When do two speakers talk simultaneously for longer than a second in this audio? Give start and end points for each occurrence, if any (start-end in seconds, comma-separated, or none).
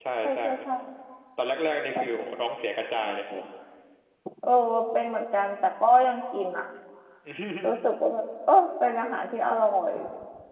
none